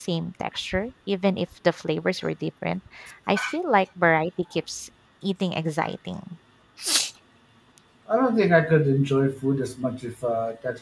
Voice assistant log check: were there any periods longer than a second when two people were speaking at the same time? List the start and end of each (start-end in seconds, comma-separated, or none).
none